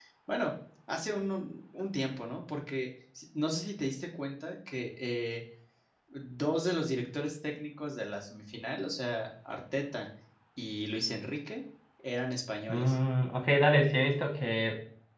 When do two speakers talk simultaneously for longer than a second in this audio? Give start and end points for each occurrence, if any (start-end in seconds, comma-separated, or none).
none